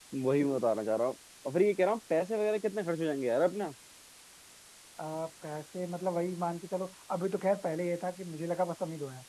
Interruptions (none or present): none